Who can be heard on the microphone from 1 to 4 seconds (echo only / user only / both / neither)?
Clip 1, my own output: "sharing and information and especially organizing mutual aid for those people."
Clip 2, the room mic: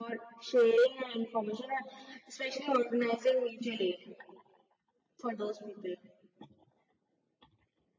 echo only